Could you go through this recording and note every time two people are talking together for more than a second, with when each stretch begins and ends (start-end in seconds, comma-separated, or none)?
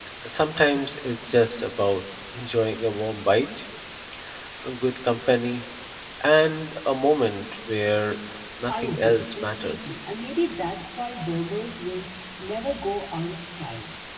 8.7-10.0